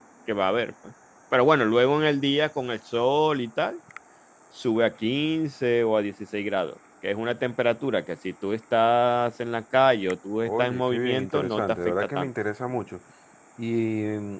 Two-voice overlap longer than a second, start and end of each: 10.4-12.3

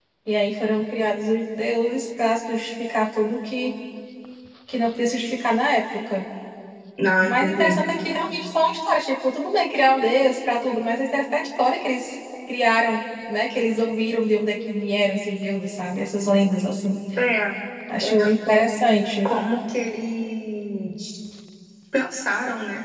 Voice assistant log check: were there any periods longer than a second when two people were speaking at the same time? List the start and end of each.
none

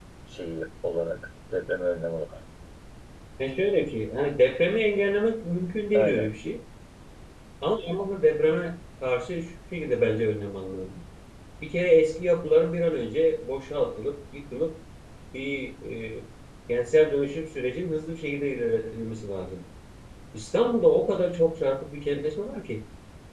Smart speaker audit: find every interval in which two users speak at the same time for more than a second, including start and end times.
none

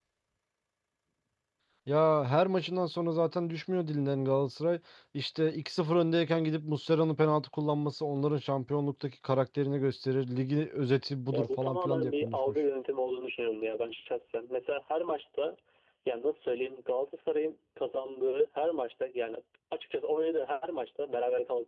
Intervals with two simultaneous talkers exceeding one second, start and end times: 11.3-12.6

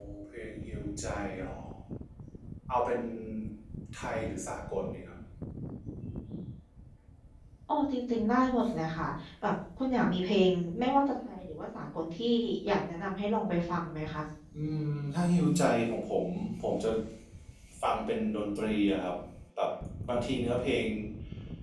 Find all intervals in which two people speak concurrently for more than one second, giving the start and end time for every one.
none

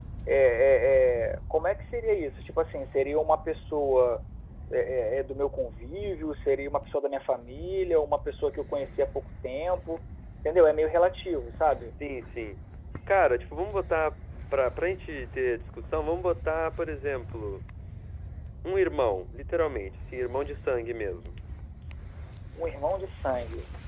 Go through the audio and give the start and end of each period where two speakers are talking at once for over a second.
none

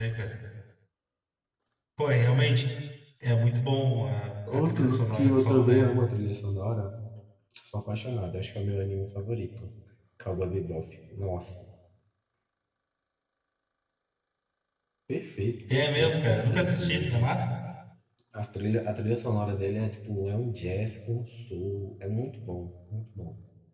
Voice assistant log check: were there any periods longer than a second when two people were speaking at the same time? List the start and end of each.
4.5-6.0, 15.7-17.3

